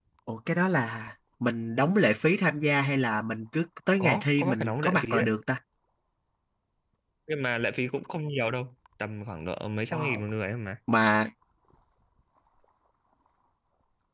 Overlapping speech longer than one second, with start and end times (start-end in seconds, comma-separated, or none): 4.0-5.3